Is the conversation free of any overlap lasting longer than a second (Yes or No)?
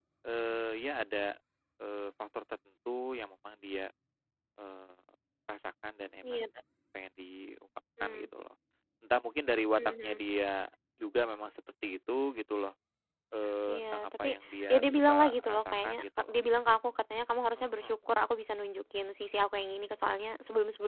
No